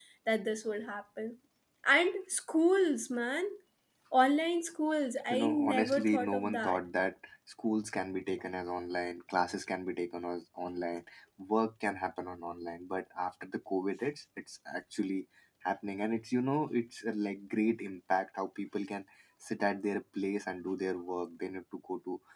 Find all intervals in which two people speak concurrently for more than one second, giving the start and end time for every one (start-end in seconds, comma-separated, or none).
5.3-6.8